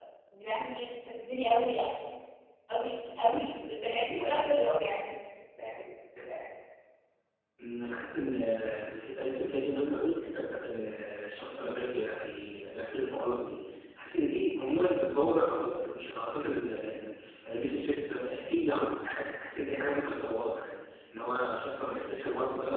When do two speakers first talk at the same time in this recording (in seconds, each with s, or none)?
none